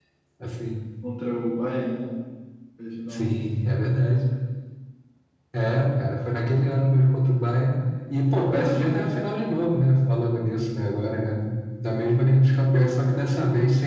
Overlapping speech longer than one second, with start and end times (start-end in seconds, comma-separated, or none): none